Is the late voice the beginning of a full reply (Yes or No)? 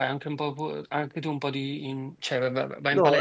Yes